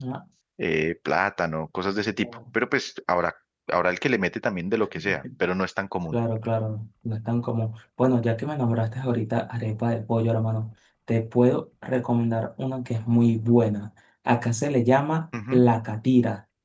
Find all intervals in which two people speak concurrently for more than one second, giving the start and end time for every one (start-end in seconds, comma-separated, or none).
none